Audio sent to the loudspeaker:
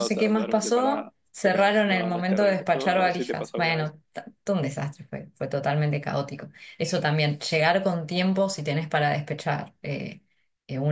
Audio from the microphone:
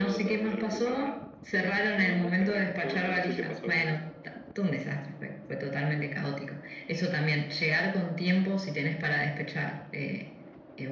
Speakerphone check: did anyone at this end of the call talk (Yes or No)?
No